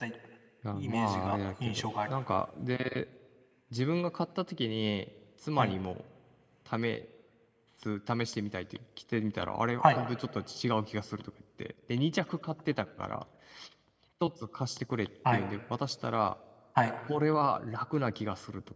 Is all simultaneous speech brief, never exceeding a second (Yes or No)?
No